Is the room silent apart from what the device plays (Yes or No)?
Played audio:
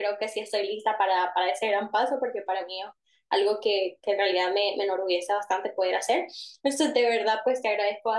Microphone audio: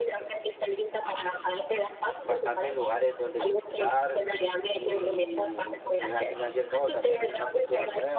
No